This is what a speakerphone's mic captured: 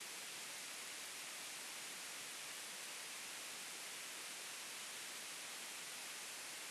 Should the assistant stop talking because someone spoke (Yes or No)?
No